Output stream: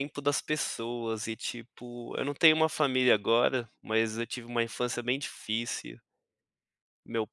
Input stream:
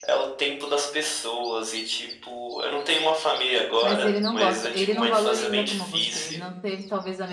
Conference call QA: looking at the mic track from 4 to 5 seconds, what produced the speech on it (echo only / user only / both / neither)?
both